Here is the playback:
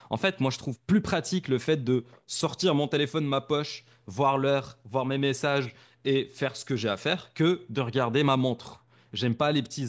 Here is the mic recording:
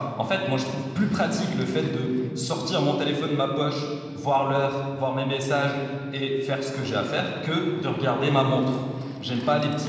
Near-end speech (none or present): none